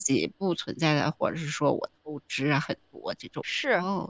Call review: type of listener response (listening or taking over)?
taking over